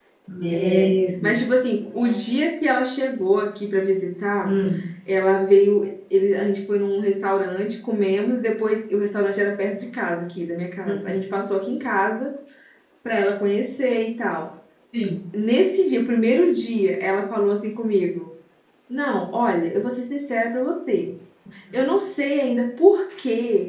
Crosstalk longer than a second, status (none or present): none